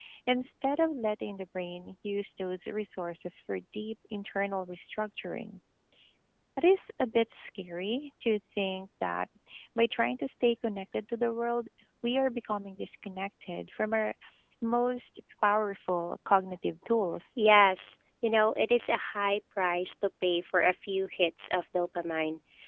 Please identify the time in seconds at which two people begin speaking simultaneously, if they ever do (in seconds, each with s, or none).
none